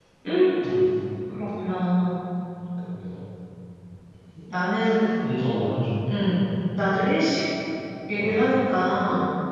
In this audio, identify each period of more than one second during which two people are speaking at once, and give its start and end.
none

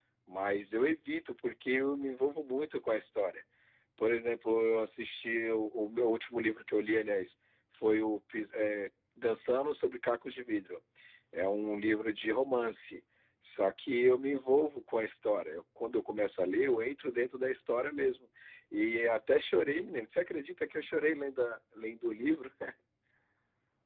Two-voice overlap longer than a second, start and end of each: none

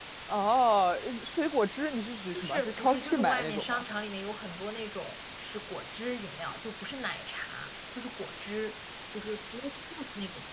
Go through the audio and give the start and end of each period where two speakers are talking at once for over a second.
2.3-3.8

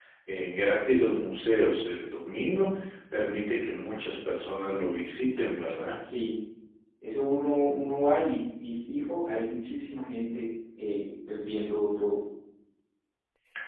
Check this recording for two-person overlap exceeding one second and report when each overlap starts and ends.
none

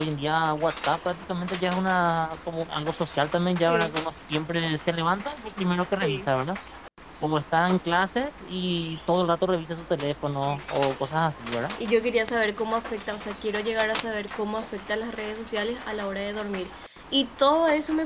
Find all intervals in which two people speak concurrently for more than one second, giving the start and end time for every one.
none

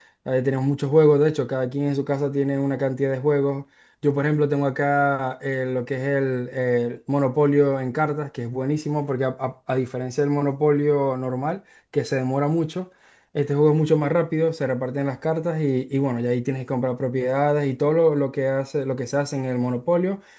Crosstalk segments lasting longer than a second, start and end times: none

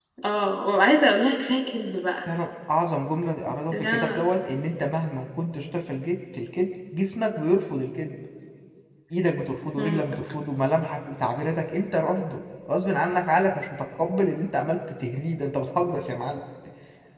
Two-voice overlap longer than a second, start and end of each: none

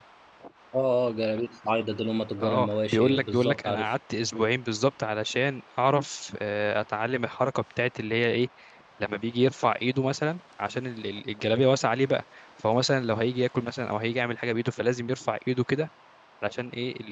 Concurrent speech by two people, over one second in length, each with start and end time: 2.4-3.9

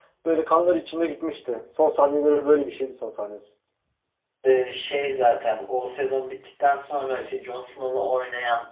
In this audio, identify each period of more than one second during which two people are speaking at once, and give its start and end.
none

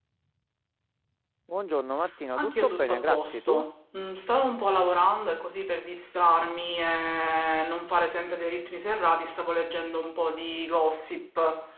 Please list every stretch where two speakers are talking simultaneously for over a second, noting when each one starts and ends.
2.4-3.6

